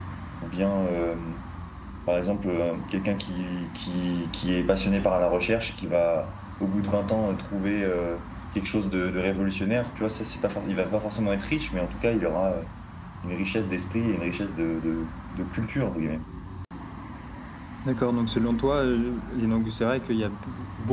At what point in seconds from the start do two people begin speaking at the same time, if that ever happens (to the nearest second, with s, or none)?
none